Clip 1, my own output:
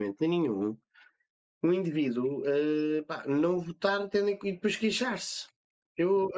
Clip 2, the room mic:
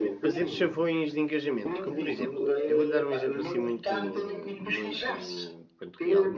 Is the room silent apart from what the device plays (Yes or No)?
No